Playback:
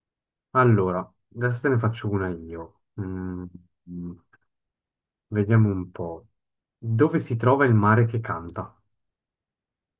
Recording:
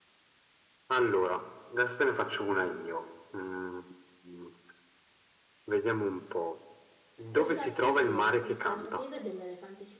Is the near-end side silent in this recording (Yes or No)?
No